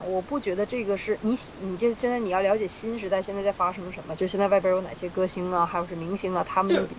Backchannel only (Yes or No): Yes